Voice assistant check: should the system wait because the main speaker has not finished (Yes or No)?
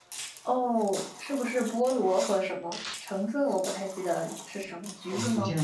No